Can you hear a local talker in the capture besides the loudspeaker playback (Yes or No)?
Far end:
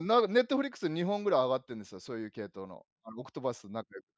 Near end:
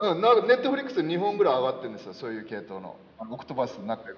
No